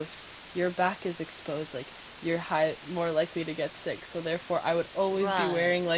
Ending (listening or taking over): listening